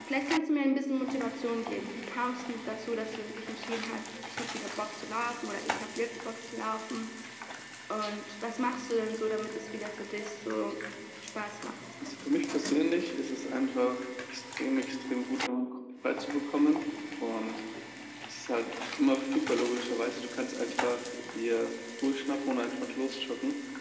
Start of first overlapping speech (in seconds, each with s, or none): none